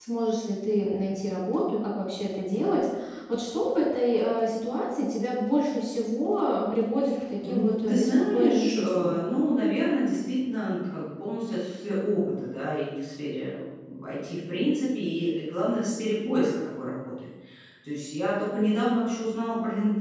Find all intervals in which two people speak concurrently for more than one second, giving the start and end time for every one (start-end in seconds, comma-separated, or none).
7.4-9.2